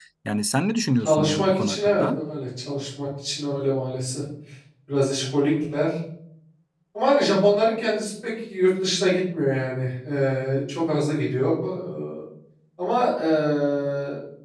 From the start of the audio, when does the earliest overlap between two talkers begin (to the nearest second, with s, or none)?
1 s